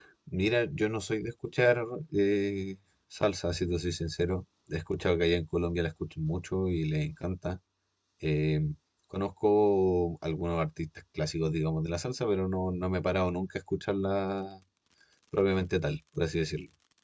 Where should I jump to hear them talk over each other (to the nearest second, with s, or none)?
none